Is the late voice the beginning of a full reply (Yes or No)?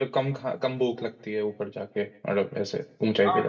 Yes